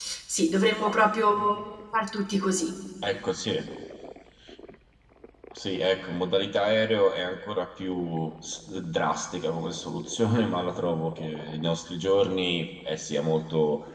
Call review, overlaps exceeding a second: none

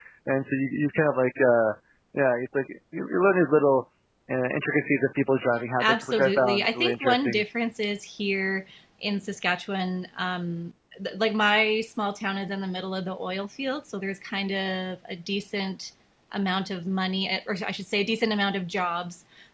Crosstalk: present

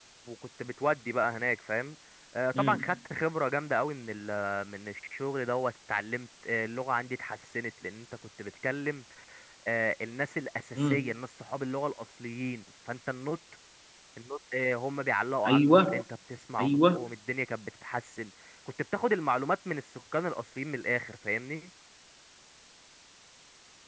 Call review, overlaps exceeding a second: none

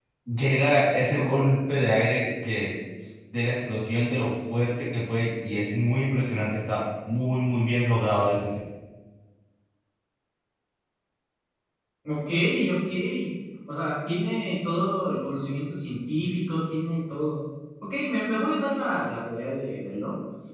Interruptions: none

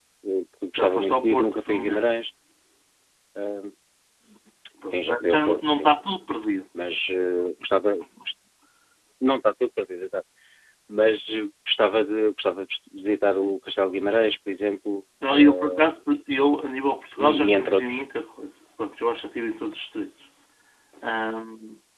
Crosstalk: present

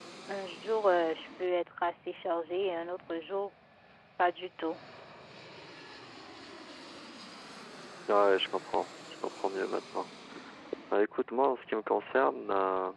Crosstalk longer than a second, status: none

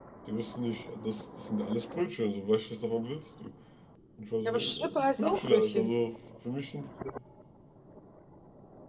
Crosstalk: present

